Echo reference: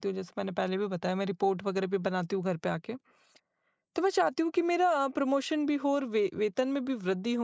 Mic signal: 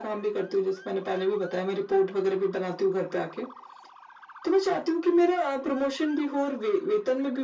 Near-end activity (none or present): none